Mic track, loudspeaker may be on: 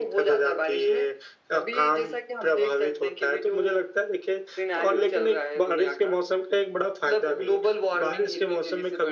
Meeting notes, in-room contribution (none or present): none